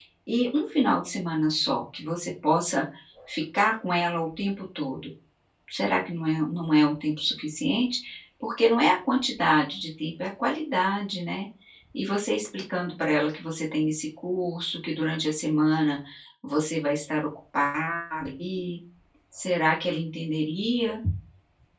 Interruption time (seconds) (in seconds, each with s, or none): none